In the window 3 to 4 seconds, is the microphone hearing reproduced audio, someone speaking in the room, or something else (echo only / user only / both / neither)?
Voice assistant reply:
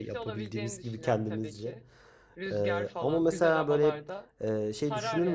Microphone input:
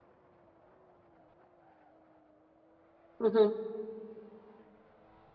user only